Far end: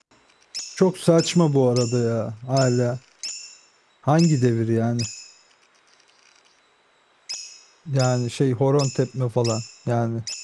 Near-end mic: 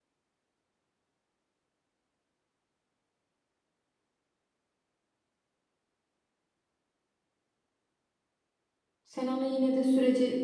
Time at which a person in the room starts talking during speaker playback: 9.0 s

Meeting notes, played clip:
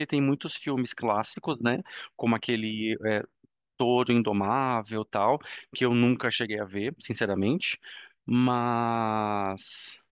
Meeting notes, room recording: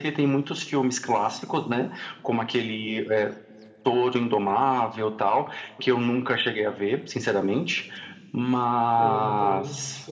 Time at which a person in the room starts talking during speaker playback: 9.0 s

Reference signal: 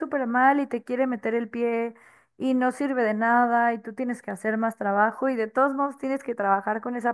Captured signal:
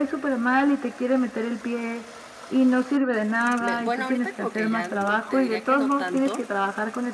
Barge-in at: 3.6 s

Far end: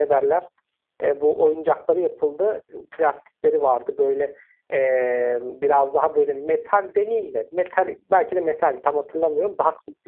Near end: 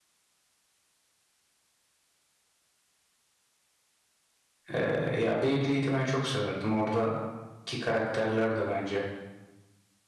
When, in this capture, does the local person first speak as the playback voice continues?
4.7 s

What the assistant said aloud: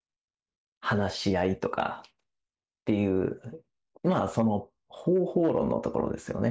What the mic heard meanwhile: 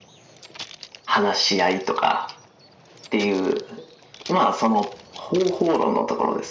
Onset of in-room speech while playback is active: none

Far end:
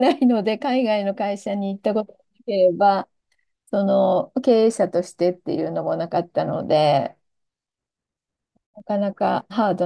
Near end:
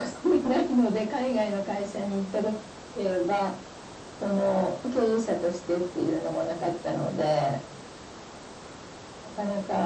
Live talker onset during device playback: none

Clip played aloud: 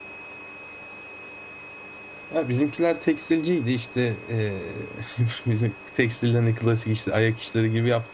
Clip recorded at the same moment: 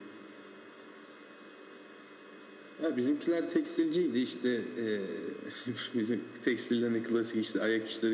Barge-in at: none

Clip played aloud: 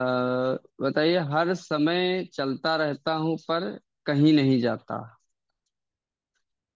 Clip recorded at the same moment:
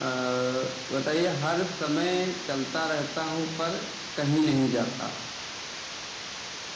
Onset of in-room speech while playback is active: none

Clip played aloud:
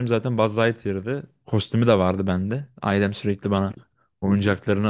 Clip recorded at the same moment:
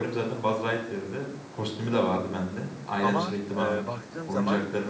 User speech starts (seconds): 3.0 s

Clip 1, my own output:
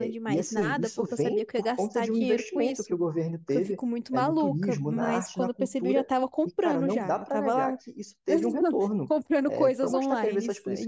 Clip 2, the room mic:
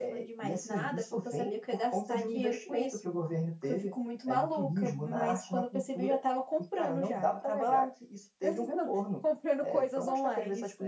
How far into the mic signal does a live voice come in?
none

